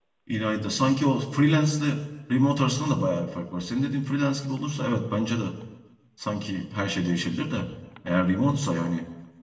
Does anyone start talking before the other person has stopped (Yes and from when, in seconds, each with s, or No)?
No